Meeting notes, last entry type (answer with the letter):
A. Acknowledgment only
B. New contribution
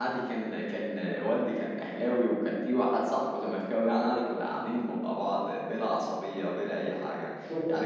A